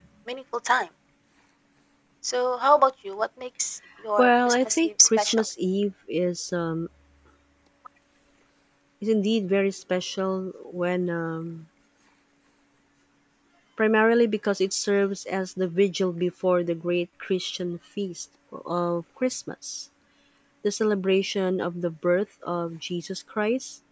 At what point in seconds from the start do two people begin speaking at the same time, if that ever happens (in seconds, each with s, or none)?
4.2 s